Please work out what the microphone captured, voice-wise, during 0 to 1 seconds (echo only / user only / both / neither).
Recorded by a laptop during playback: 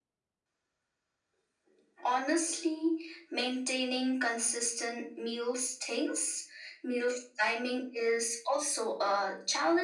neither